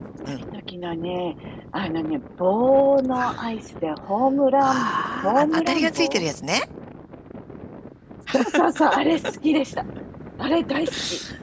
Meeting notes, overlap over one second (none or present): present